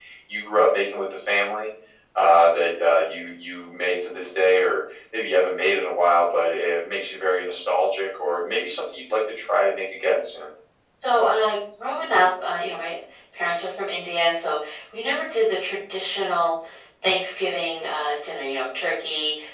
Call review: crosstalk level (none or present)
none